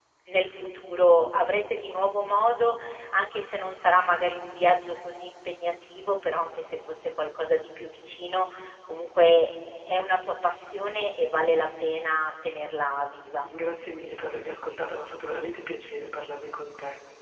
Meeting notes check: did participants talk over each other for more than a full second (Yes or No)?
No